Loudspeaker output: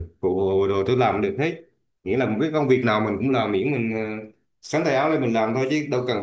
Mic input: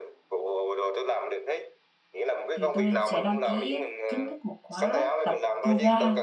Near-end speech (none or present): present